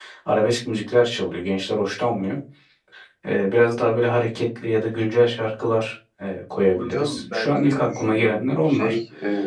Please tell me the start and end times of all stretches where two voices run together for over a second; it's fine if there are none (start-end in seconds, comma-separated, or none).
6.8-9.0